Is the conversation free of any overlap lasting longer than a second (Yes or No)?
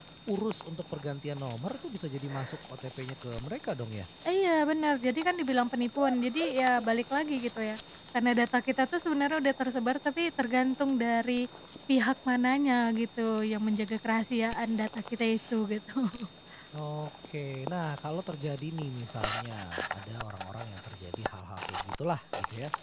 Yes